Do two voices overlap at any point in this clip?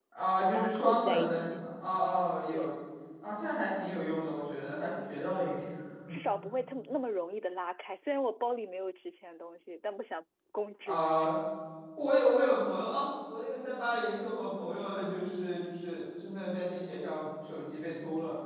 Yes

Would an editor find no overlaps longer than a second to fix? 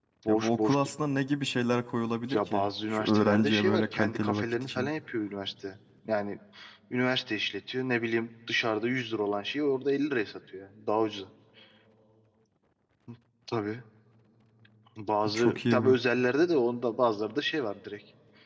No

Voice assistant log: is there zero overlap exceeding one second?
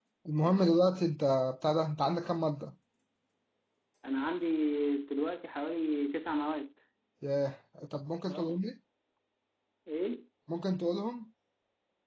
Yes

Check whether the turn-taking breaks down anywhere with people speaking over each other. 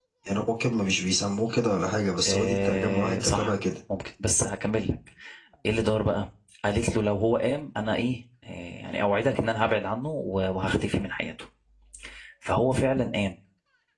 Yes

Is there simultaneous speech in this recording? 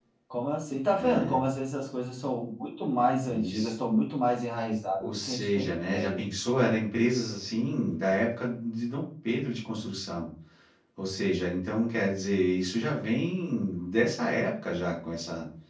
Yes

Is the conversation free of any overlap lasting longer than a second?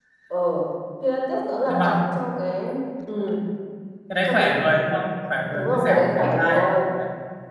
No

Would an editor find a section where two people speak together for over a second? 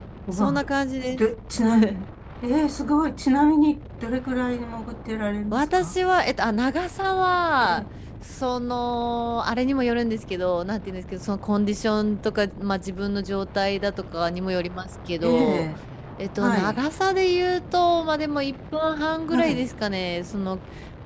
No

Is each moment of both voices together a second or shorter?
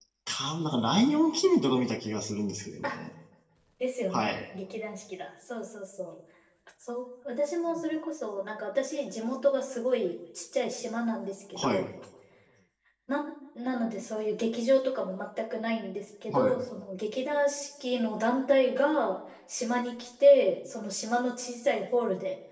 Yes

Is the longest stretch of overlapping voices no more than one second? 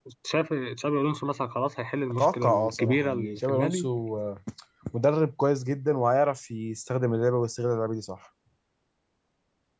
No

